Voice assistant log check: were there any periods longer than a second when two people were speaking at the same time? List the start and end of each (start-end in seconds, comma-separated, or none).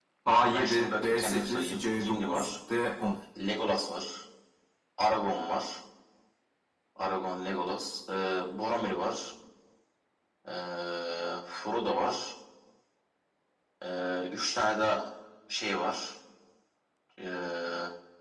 0.5-2.5